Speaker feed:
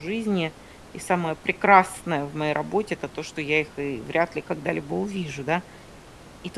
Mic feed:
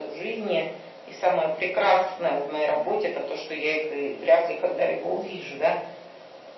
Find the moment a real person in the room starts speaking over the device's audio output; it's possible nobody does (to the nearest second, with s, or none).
none